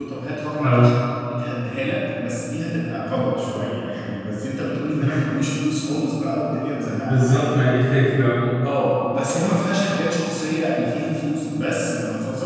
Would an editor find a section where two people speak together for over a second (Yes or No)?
No